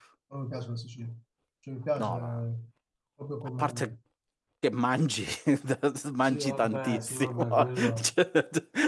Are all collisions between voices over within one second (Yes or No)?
No